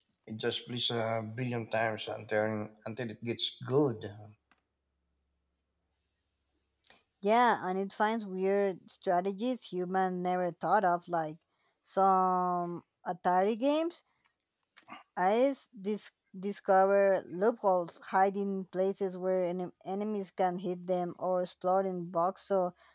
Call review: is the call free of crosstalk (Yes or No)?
Yes